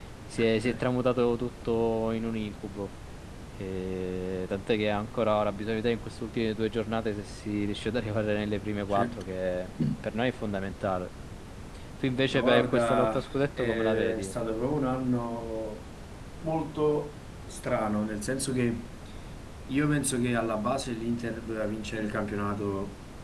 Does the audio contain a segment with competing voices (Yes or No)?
Yes